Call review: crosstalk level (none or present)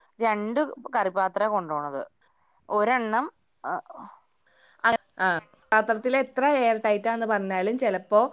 none